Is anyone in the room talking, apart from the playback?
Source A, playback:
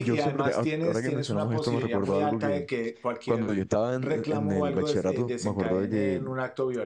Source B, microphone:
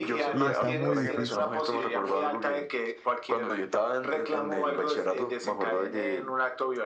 Yes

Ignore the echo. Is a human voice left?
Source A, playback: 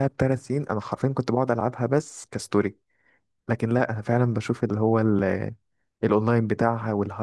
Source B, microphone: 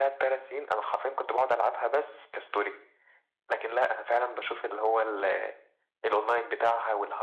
No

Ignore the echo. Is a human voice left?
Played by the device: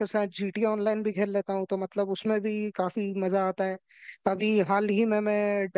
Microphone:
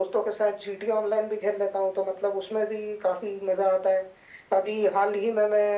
No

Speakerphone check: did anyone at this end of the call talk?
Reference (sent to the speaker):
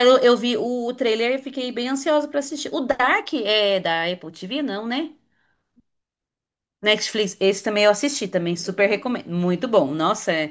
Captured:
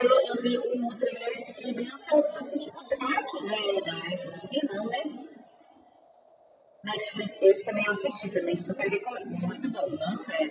No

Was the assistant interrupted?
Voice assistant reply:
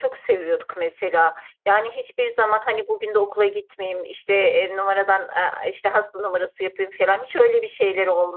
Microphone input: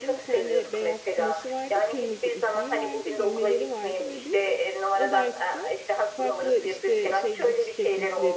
Yes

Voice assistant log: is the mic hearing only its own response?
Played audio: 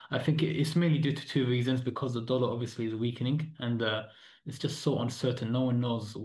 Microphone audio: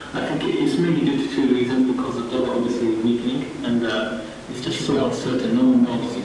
No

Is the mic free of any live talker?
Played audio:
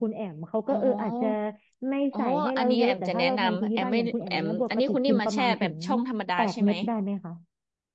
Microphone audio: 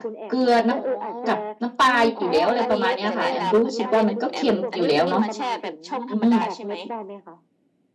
No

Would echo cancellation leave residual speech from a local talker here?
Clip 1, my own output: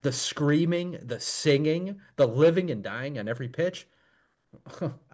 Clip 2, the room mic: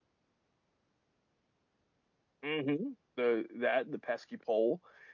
Yes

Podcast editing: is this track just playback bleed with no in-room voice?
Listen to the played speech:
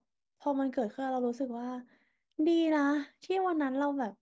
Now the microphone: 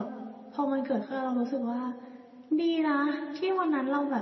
Yes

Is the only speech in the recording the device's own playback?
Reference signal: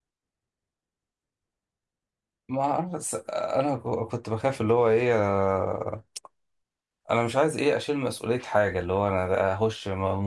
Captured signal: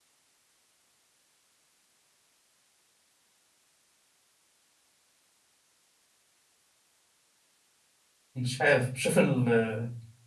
No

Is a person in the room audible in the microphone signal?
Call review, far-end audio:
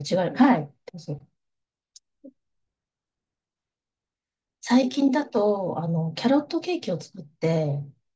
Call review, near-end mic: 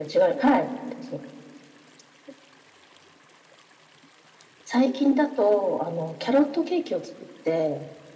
No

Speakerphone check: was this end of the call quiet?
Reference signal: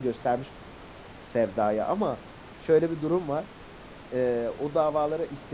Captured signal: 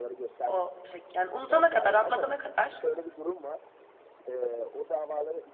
No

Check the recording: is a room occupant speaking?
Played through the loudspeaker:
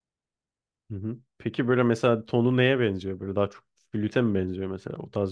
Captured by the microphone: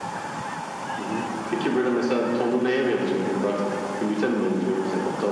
No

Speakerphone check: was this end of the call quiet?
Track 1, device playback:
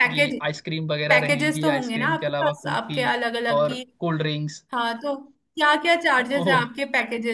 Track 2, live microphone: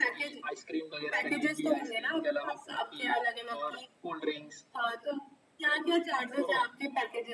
Yes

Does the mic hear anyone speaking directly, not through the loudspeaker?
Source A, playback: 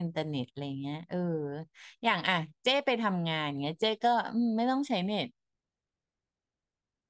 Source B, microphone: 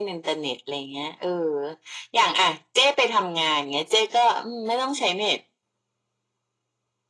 No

